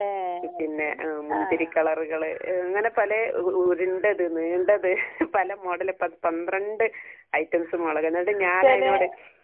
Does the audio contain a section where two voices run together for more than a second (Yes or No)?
No